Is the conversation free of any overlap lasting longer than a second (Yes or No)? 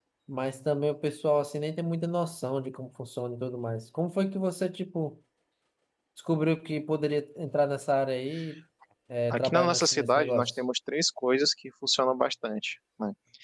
No